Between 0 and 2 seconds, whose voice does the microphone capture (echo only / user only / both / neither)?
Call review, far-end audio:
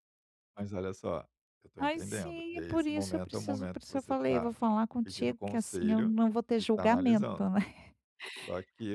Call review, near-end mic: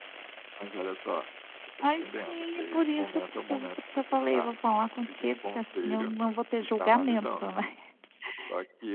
echo only